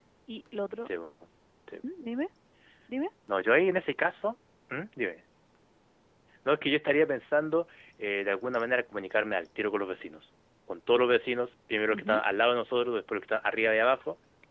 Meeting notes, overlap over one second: none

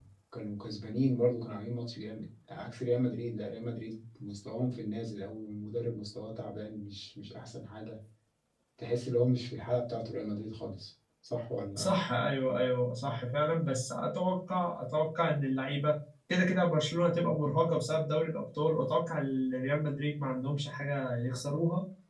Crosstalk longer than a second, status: none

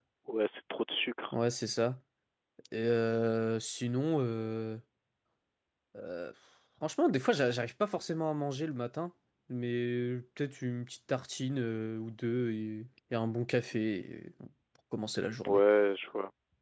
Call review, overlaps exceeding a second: none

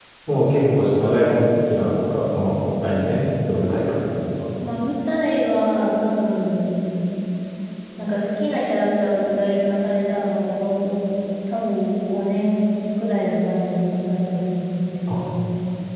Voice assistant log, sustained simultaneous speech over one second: none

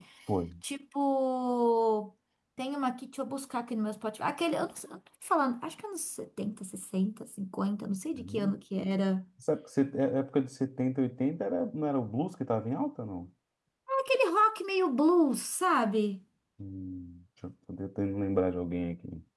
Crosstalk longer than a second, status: none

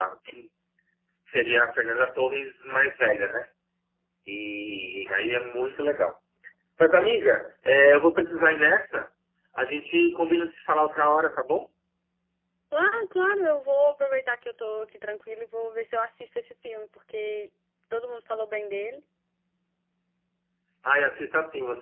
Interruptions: none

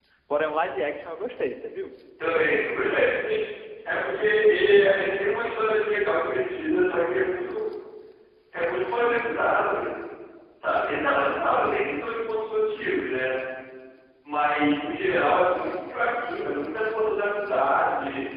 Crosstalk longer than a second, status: none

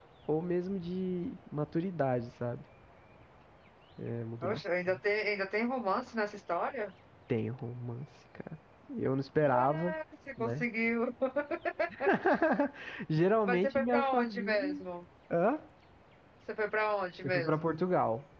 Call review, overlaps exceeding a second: present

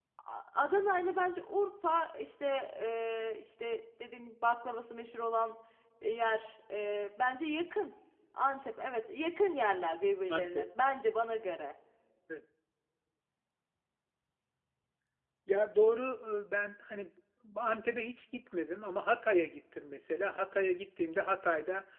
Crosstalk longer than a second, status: none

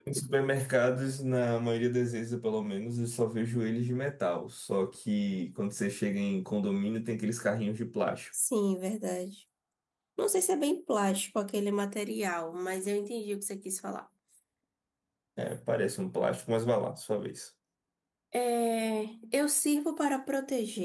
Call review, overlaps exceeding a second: none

